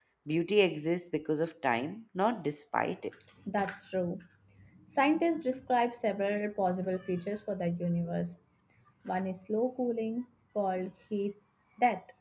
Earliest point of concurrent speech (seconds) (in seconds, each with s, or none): none